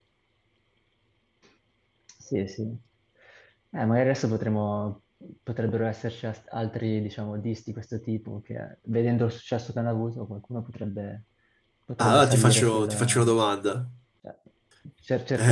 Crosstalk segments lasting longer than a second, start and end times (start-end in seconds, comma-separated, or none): 12.0-13.4